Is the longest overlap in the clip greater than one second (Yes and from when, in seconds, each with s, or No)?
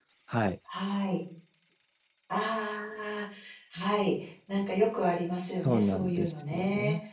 Yes, from 5.5 s